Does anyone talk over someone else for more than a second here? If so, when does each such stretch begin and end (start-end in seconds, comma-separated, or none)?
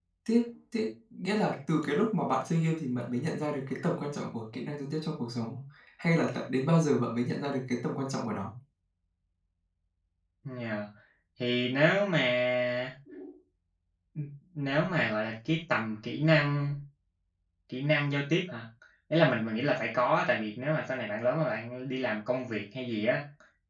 none